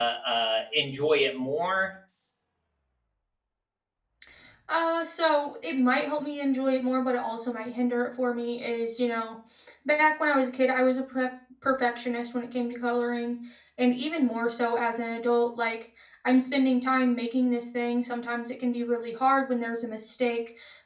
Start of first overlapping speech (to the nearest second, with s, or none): none